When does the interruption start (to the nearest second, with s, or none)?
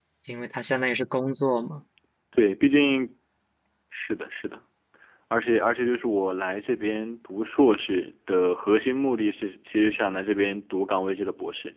none